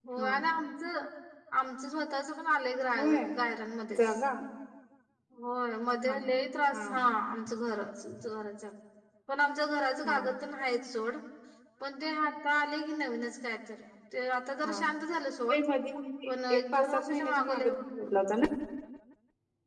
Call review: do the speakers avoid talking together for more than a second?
No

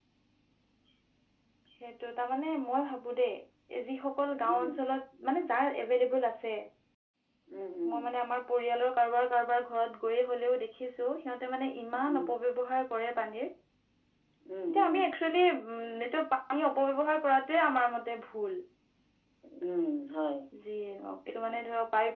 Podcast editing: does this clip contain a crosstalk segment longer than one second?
No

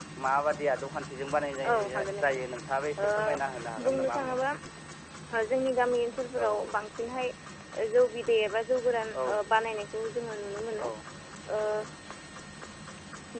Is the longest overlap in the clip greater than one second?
Yes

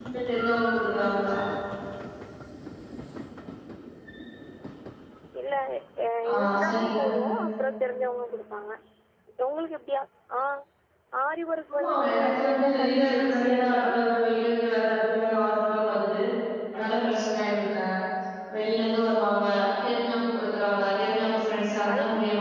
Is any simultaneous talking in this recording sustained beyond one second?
Yes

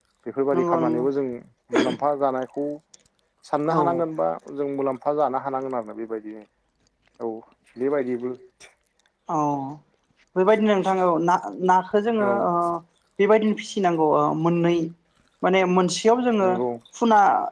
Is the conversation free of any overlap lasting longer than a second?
Yes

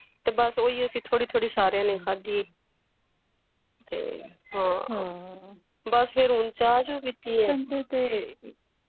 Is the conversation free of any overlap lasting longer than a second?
Yes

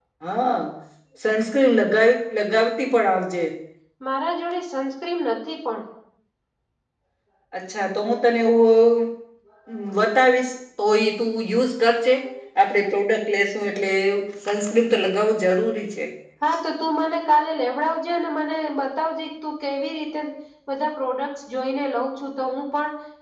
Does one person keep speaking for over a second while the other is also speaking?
No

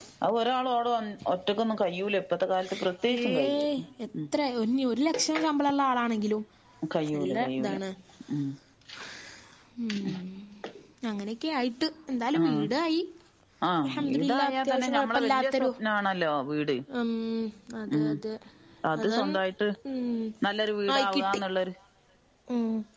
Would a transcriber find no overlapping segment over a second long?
No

